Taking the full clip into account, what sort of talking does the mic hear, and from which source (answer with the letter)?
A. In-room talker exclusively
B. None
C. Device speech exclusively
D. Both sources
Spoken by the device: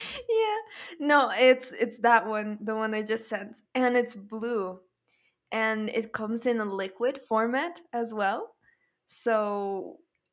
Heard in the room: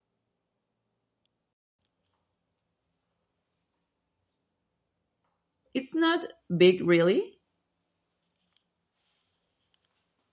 A